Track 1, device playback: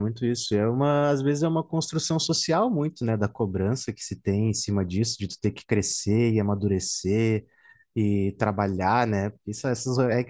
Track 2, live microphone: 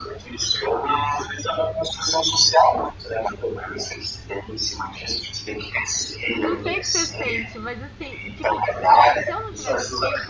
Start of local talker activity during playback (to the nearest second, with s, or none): 6 s